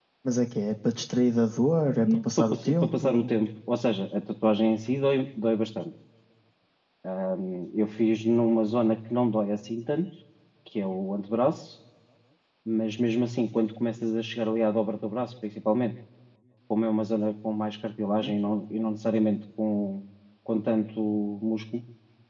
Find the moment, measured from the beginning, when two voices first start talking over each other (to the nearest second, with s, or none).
2 s